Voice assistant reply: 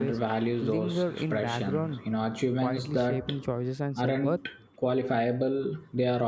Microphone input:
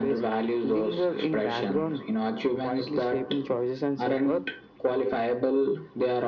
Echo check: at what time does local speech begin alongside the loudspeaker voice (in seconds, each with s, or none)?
none